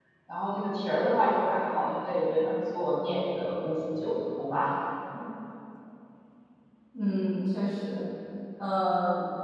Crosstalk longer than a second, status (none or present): none